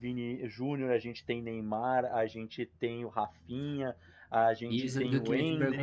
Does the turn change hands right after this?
Yes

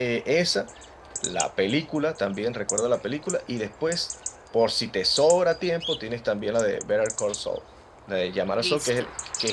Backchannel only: Yes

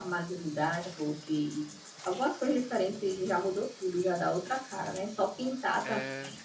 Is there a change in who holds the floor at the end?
No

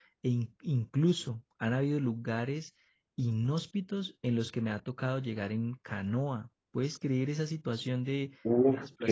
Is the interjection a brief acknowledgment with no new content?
No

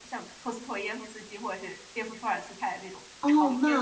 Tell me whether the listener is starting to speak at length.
Yes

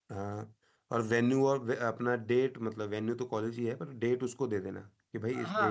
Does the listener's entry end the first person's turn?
Yes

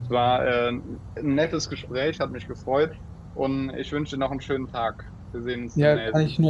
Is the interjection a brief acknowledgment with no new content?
No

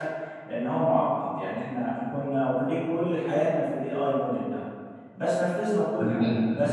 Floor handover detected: No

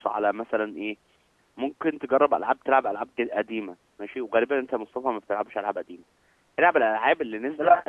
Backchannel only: Yes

